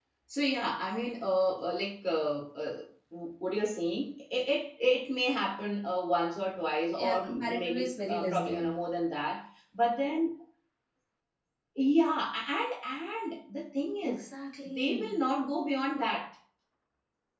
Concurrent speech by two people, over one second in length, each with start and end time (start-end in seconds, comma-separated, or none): 7.0-8.7